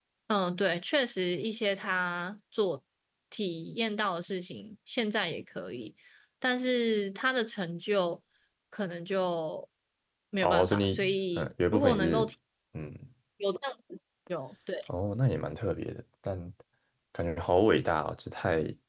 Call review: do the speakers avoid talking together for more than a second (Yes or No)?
No